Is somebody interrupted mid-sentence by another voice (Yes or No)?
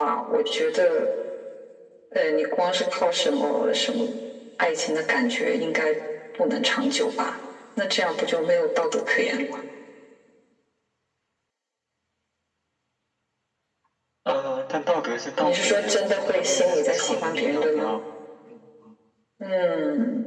Yes